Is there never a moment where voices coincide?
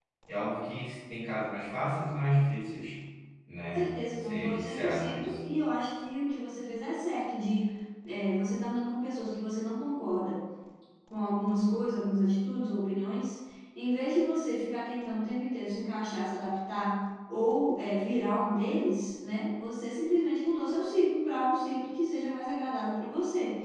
No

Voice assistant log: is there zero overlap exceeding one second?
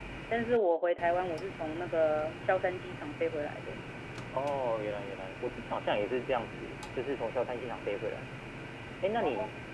Yes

